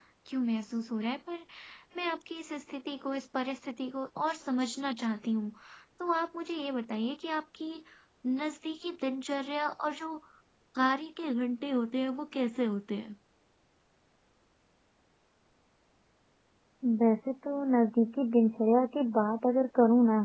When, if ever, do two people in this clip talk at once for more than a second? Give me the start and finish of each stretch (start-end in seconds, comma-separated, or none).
none